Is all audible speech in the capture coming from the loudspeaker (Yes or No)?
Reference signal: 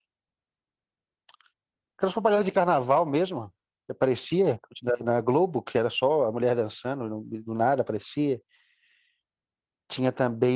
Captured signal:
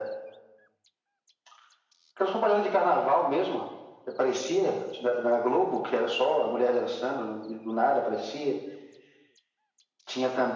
Yes